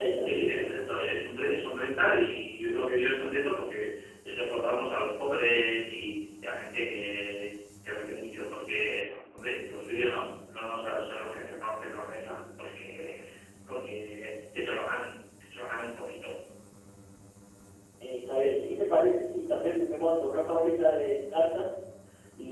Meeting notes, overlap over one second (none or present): none